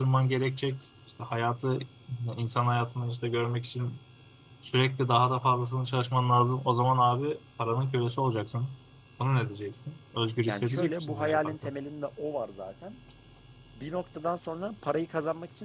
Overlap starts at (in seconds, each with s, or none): 10.5 s